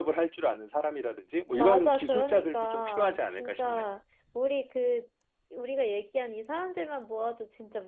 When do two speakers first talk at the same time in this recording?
2 s

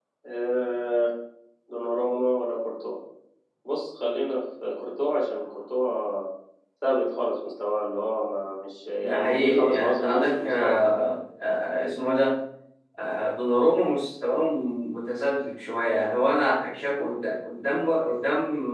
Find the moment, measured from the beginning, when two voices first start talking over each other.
9 s

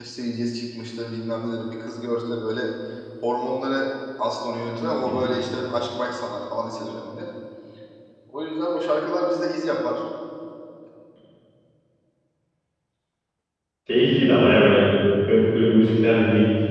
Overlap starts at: none

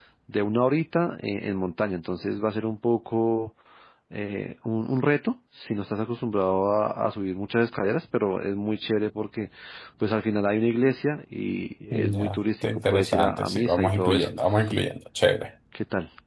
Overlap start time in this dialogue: 12 s

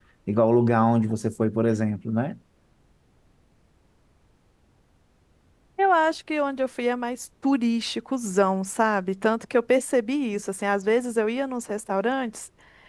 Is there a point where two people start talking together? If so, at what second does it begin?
none

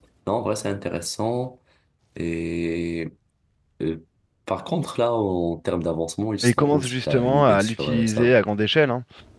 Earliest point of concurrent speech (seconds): 6 s

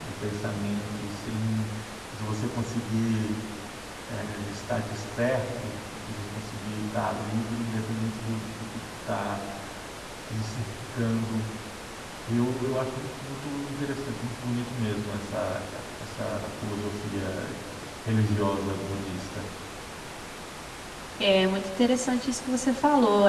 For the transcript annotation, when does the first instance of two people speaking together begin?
none

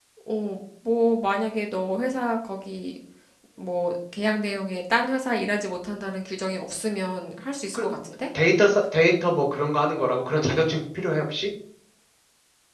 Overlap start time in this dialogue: none

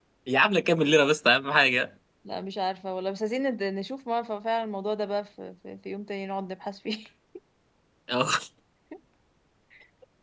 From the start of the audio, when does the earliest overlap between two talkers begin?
none

